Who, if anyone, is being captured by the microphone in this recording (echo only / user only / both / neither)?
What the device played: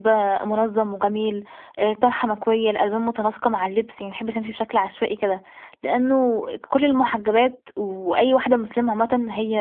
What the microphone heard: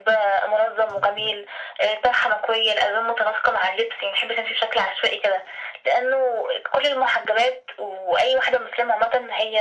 echo only